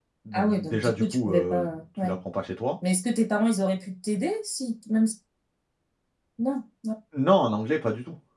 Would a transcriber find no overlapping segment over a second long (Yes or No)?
No